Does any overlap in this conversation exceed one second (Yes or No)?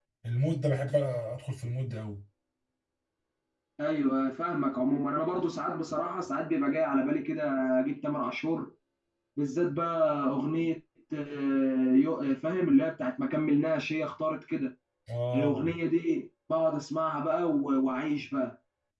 No